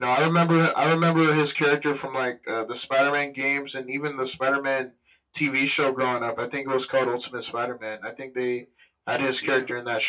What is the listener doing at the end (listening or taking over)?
listening